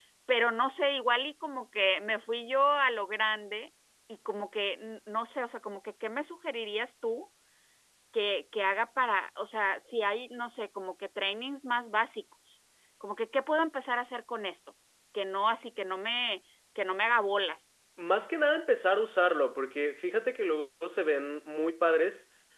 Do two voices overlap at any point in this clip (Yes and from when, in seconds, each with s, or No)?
No